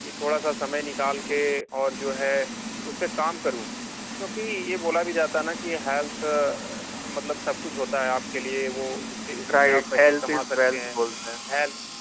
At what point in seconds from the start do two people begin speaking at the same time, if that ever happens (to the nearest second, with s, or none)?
9 s